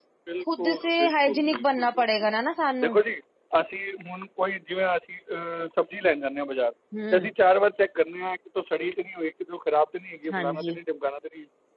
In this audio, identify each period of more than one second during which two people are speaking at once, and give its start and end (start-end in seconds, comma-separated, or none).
0.6-2.0